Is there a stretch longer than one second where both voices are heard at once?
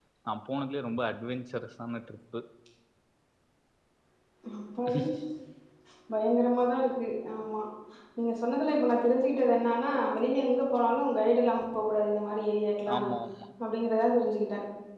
No

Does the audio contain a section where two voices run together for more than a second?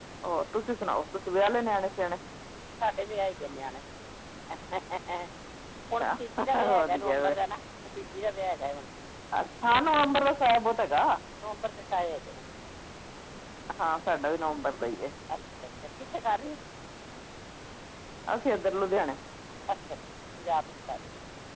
Yes, from 6.0 s

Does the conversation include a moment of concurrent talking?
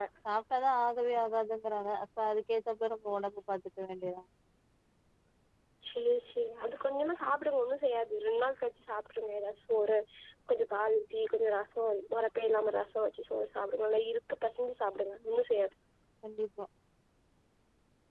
No

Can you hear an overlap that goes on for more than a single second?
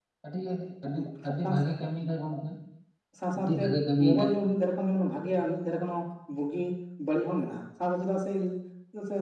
No

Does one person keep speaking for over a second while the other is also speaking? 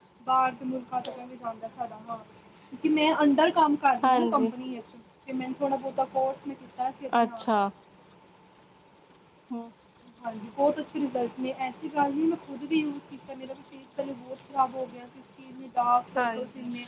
No

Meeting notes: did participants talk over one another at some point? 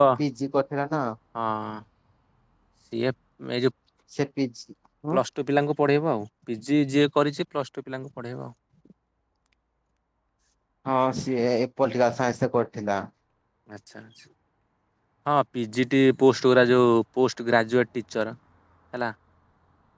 No

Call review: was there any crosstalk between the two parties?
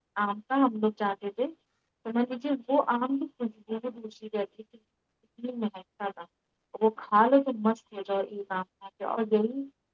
No

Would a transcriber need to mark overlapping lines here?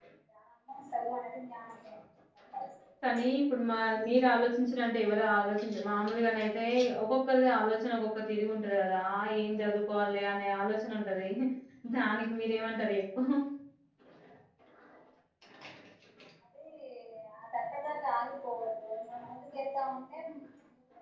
No

